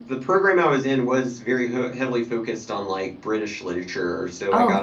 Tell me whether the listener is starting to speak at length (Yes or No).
No